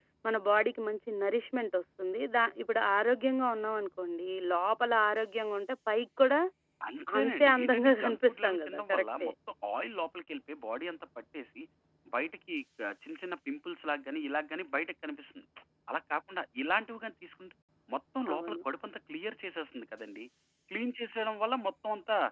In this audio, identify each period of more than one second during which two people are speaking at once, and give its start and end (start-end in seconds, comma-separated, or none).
7.2-9.3